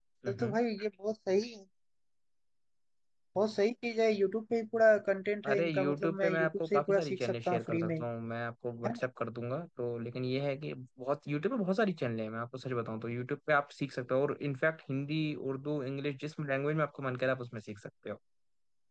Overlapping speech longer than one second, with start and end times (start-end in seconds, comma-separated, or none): 5.5-8.0